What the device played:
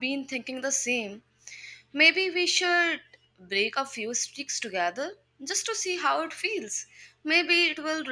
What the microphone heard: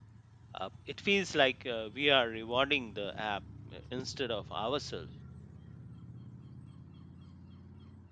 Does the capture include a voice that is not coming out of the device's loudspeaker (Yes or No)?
Yes